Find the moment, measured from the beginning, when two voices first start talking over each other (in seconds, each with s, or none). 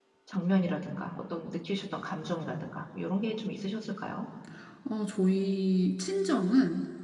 none